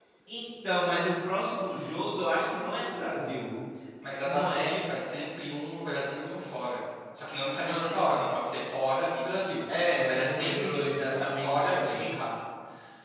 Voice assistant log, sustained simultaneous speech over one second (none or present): present